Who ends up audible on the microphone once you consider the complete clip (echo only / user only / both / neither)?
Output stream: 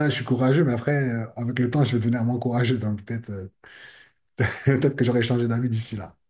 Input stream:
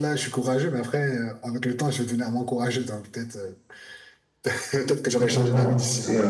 both